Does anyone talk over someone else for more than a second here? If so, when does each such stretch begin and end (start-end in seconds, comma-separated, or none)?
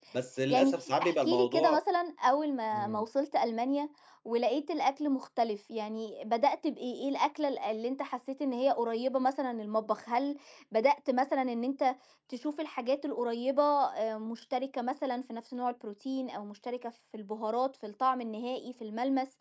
0.5-1.8